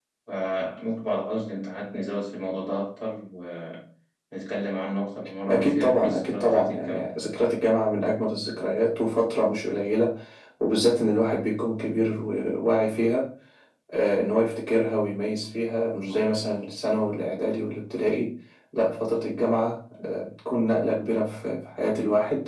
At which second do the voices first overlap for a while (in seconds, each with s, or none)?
5.5 s